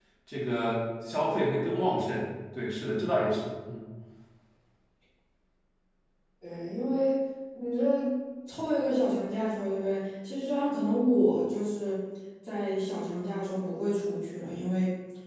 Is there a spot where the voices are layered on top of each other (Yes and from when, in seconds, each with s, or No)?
No